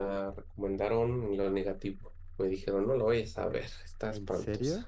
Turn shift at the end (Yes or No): Yes